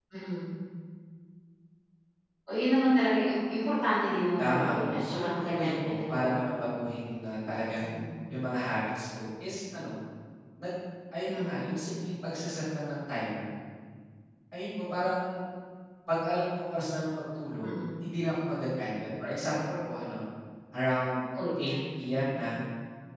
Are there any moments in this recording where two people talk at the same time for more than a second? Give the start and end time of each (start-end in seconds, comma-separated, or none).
4.4-6.7